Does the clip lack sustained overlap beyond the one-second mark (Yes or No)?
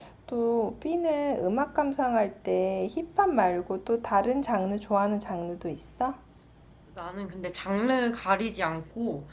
Yes